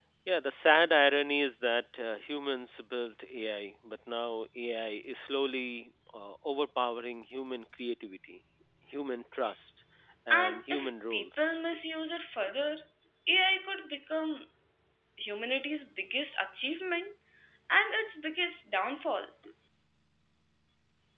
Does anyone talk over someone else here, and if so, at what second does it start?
10.3 s

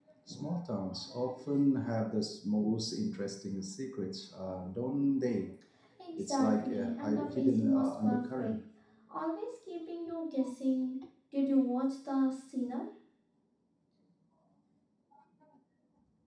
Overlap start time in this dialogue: 6.2 s

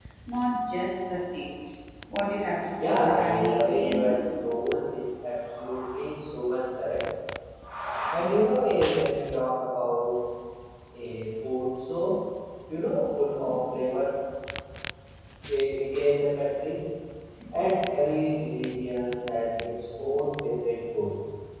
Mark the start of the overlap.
2.8 s

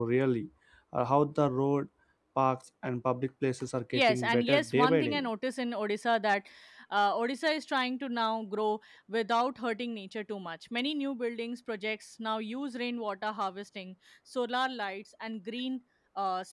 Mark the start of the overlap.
3.9 s

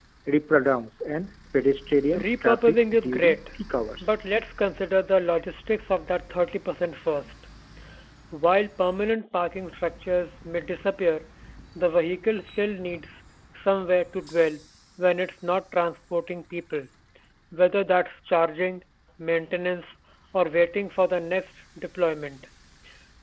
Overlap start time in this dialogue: 2.1 s

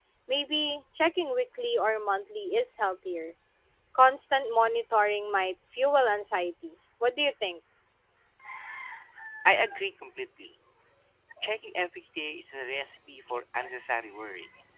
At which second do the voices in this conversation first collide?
none

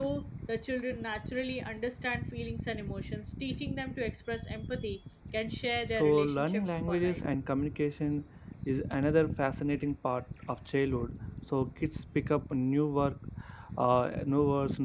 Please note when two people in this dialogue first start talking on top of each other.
5.9 s

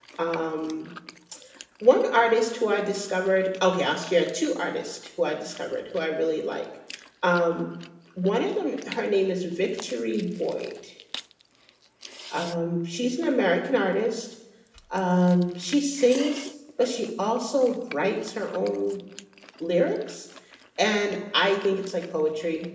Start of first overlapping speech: none

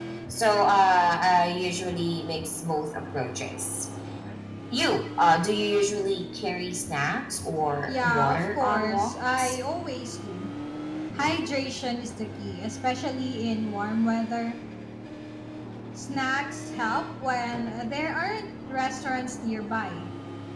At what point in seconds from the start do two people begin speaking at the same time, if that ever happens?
7.9 s

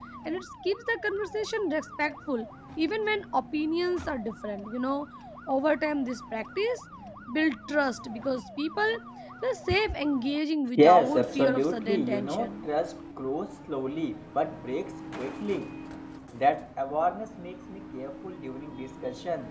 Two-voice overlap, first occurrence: 10.8 s

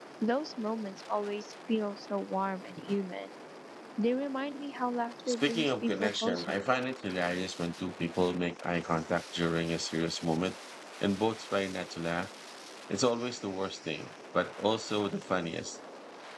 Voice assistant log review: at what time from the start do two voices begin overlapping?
5.2 s

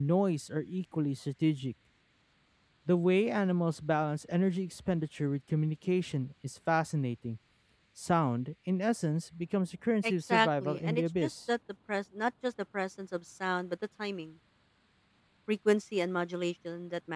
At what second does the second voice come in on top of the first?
10.0 s

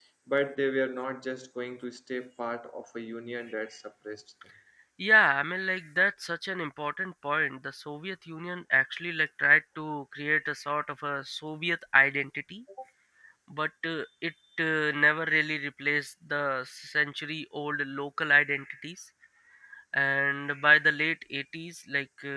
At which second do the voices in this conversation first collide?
none

